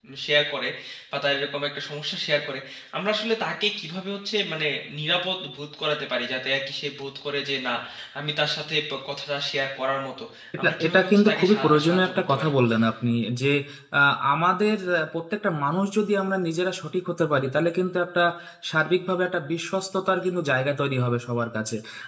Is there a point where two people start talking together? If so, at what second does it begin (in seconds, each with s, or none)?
10.6 s